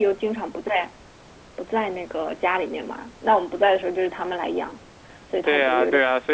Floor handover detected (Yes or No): Yes